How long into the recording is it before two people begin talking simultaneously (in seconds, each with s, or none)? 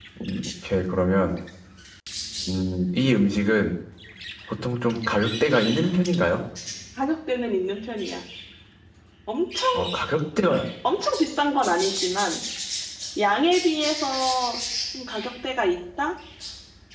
none